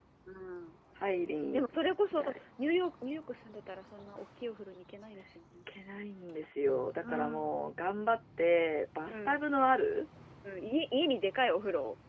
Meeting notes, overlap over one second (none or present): none